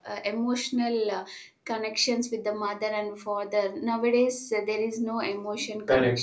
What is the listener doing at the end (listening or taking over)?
taking over